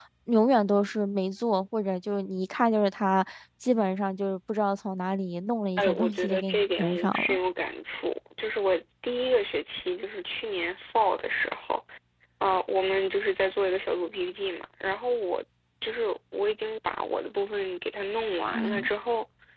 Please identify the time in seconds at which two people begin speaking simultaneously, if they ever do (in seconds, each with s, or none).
5.8 s